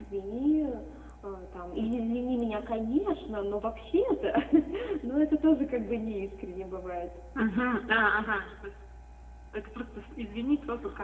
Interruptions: none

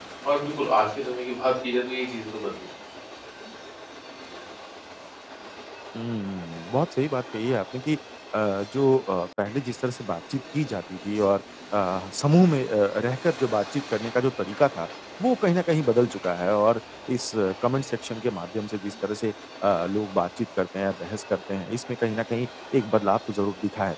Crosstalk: none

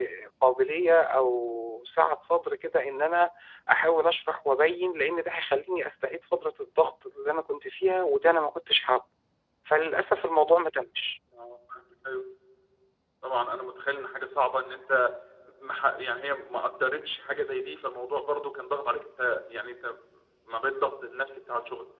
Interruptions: none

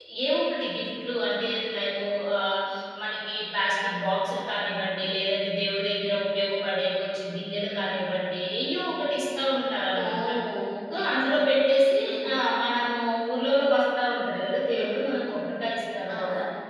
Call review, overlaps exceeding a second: none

